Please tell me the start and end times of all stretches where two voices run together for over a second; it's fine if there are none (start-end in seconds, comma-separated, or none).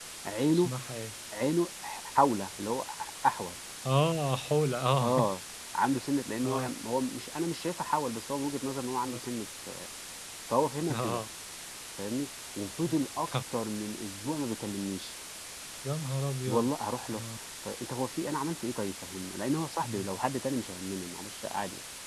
none